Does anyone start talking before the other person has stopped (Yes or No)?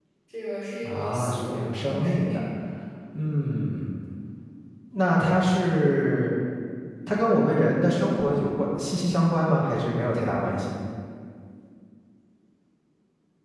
Yes